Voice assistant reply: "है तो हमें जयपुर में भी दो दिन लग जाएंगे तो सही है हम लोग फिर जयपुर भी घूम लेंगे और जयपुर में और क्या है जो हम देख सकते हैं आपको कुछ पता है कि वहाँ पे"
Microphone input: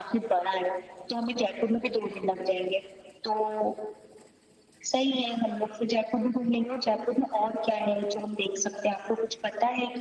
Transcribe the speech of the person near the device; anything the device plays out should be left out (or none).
none